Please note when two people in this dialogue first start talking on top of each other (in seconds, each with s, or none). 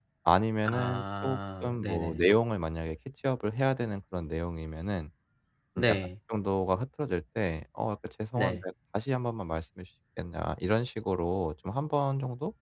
0.7 s